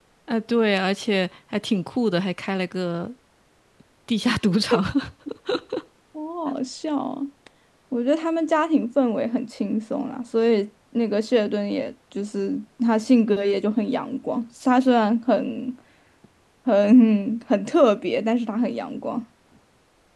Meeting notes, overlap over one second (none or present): none